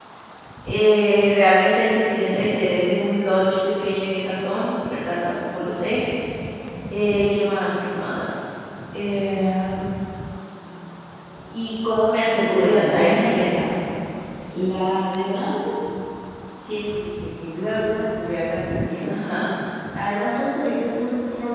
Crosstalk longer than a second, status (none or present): present